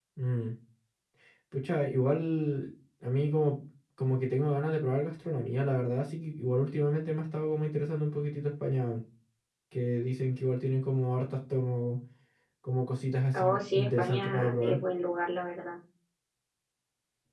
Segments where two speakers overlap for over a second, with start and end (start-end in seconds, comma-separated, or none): 13.3-14.8